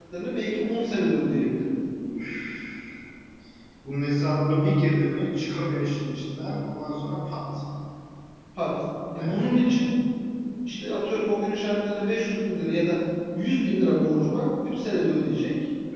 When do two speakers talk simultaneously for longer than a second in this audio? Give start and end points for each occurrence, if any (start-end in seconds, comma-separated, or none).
none